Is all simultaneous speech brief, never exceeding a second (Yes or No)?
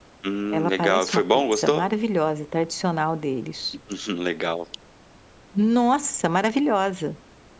No